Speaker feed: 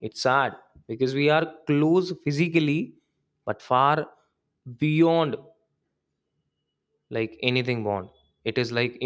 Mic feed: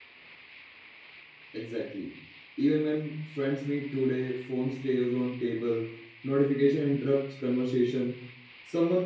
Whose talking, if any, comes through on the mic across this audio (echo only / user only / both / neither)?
user only